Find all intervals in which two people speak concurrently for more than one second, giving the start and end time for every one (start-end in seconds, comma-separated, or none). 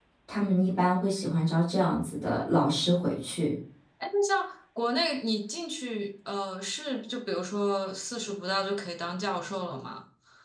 none